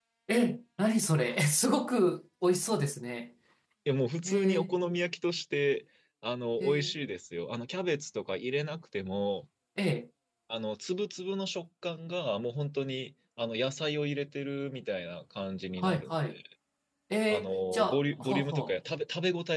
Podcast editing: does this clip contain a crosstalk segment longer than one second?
Yes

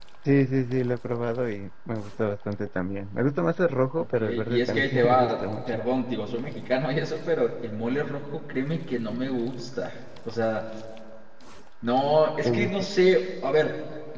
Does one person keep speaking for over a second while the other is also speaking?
Yes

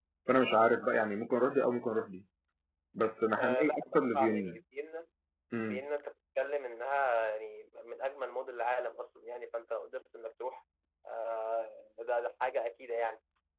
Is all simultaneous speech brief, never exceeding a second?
No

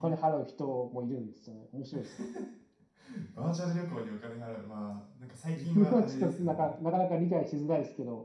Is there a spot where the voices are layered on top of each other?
Yes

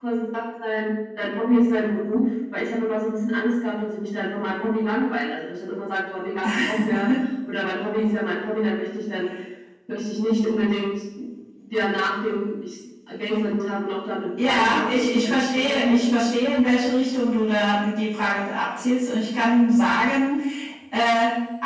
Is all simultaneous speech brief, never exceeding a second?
No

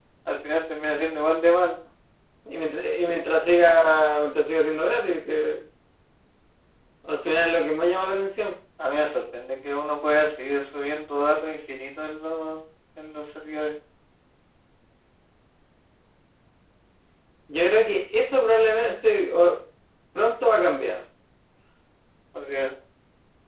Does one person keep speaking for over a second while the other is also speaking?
No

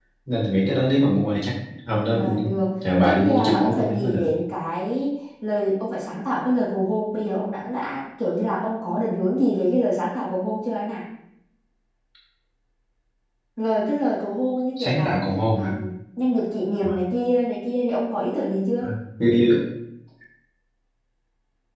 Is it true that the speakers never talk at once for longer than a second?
No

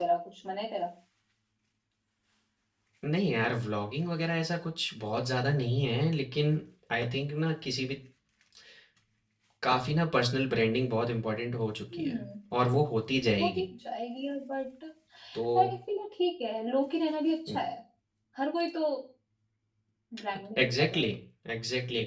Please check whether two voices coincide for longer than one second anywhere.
No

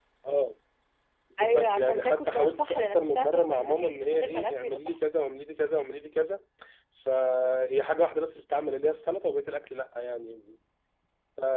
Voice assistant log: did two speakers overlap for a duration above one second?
Yes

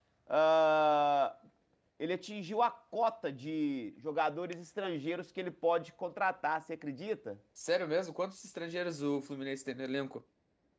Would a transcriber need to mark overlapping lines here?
No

